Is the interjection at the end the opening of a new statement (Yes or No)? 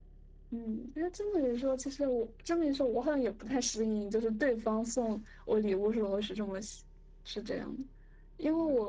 No